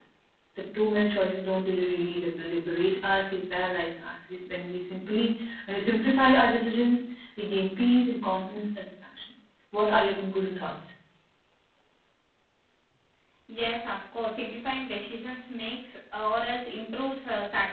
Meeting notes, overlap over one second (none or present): none